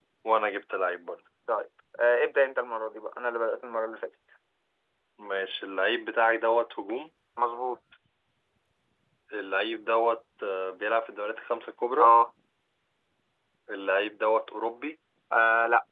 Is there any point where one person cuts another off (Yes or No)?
No